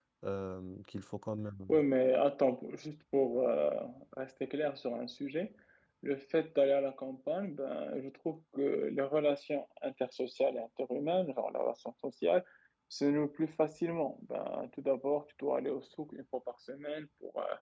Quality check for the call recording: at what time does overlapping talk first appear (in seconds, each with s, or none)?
none